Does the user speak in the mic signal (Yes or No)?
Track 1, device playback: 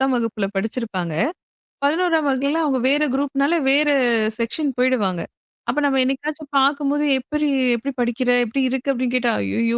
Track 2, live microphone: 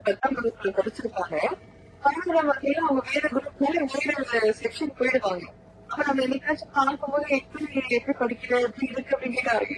No